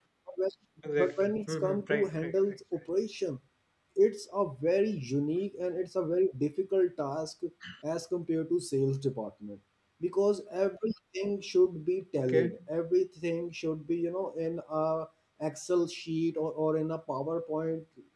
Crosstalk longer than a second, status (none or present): present